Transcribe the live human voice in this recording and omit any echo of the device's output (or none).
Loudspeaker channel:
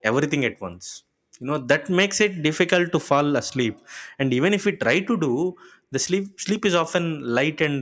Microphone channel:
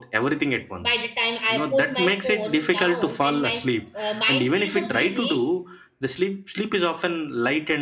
by the time i put my phone down and my uh, mind feels uh, busy